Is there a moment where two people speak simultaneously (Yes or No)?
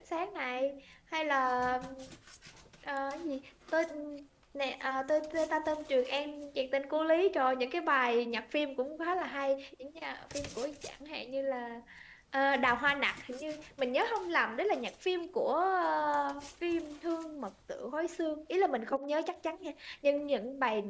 No